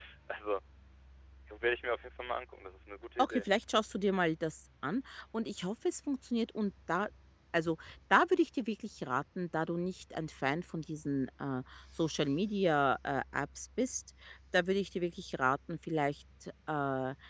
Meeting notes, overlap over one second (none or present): none